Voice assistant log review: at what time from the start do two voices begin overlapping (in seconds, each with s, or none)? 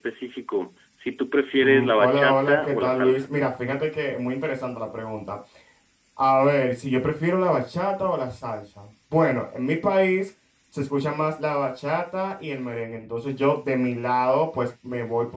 1.6 s